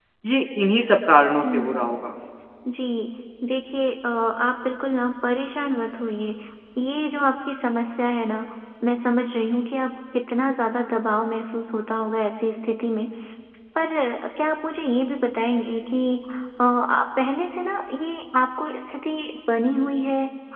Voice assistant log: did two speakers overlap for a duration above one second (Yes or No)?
No